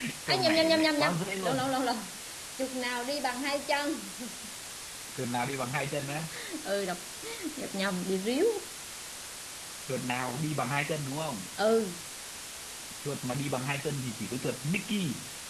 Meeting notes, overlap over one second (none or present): present